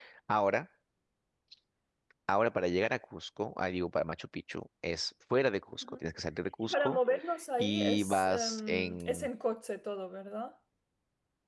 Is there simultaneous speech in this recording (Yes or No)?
Yes